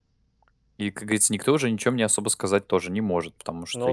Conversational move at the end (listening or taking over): listening